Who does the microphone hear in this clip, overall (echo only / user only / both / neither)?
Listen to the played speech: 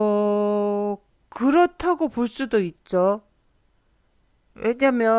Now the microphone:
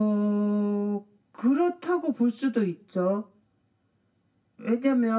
echo only